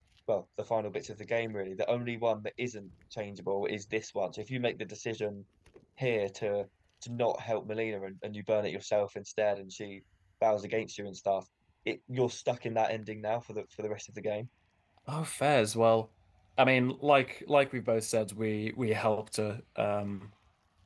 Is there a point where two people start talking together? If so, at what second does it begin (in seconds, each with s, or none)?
none